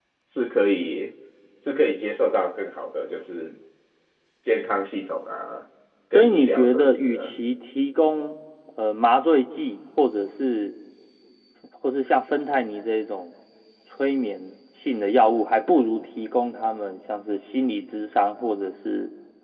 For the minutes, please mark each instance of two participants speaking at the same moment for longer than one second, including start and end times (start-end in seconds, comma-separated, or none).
6.1-7.3